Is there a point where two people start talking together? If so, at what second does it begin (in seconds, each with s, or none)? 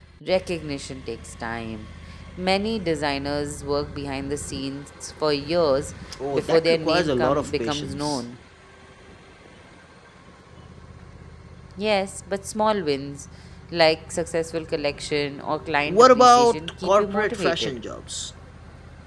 6.3 s